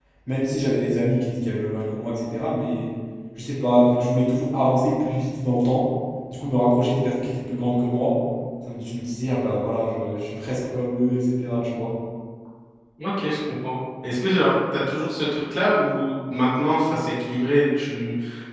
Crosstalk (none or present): none